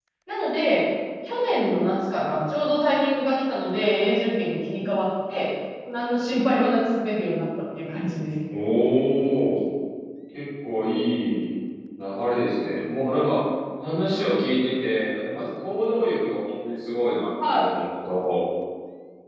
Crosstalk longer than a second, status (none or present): none